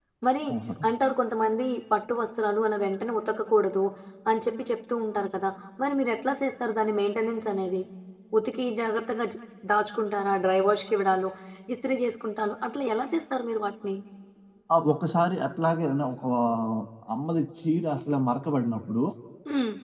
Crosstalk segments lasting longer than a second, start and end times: none

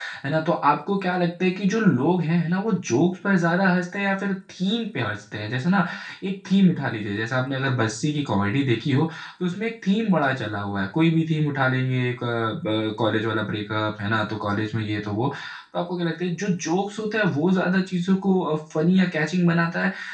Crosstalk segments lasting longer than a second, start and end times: none

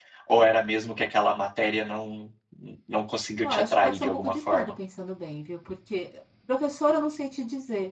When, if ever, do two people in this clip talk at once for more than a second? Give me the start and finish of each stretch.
3.4-4.8

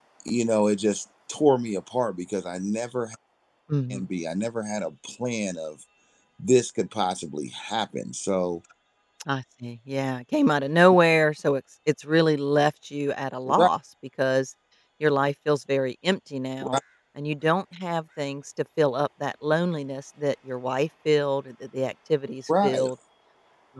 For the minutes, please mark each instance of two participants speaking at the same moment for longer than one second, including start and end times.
none

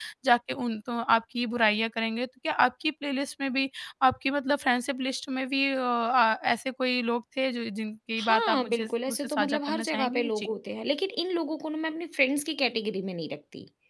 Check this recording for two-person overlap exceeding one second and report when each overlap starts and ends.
8.2-10.5

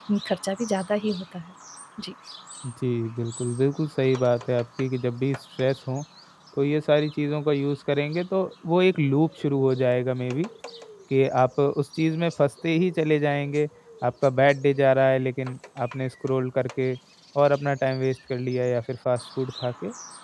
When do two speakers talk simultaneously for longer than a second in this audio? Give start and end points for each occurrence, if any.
none

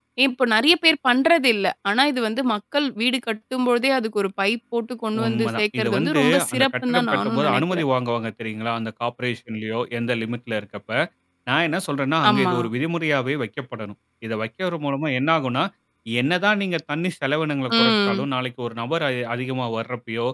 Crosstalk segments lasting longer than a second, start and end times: 5.2-7.8

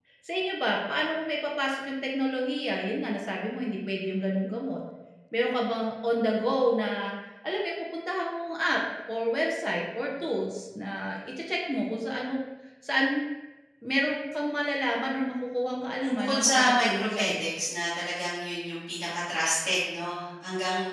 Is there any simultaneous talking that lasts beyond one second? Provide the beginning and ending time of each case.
16.0-17.5

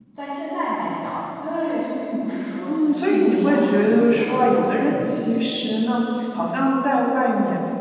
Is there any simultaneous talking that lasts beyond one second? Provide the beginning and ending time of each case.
2.6-5.1

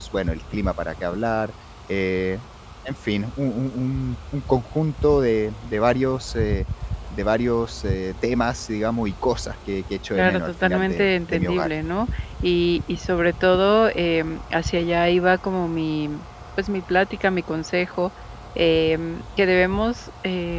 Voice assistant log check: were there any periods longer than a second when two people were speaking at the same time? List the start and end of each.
10.2-11.7

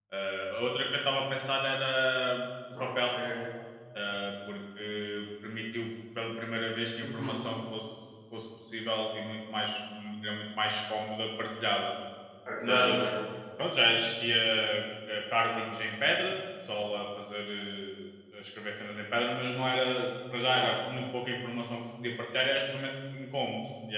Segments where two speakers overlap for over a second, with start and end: none

